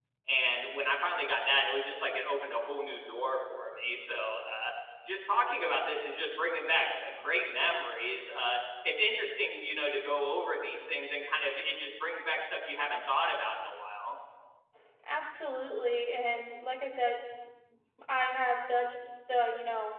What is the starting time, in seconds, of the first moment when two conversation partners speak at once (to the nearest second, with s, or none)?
none